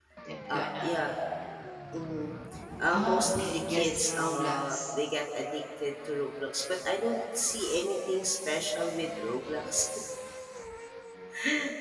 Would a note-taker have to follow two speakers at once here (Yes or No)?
Yes